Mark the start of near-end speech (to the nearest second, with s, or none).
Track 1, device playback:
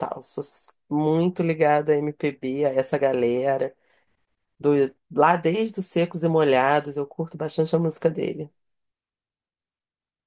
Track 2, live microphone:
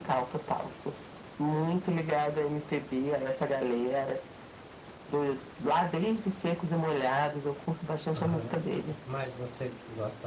8 s